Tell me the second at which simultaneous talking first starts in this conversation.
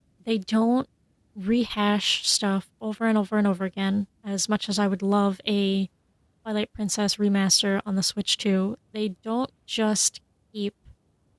none

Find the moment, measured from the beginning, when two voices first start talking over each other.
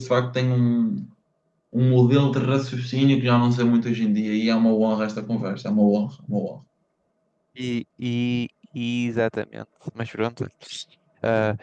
none

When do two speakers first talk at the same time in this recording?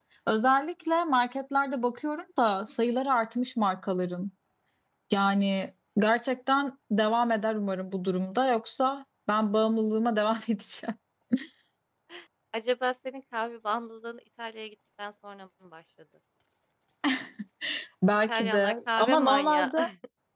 18.3 s

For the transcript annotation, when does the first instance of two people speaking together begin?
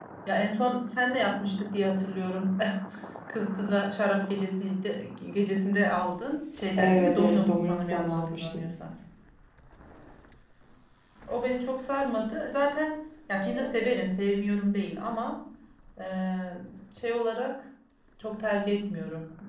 6.8 s

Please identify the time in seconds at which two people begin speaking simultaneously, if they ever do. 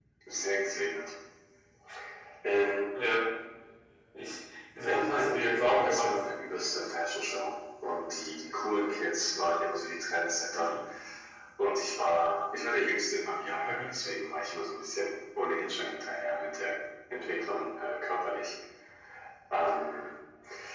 4.8 s

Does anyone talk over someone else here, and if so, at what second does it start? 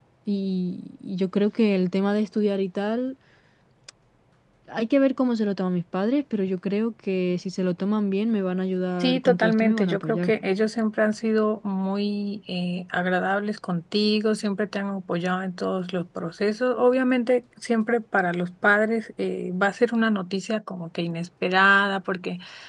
9.0 s

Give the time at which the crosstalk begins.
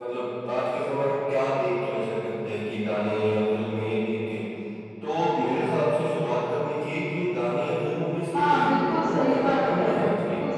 8.3 s

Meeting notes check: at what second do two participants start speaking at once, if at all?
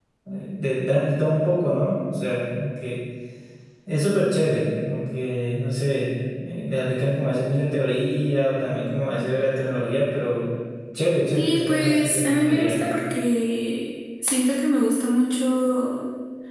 11.4 s

